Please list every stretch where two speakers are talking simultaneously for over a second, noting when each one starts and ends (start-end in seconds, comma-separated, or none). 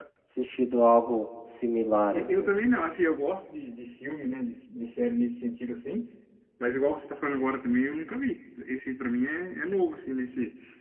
none